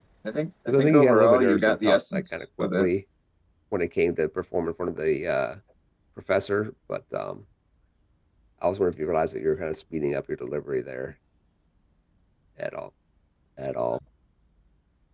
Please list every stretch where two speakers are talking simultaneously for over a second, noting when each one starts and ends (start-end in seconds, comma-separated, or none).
0.7-2.9